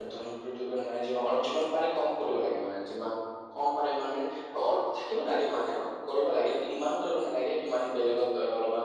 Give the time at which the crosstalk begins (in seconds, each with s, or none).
none